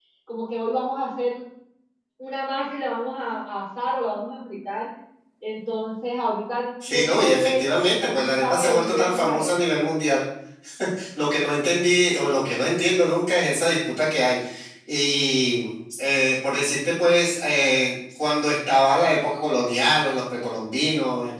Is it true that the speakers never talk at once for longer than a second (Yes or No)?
No